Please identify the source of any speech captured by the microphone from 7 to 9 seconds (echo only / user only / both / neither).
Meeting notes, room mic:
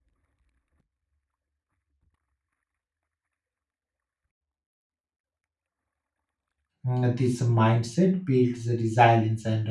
user only